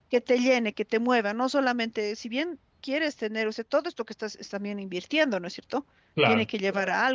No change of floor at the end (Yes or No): Yes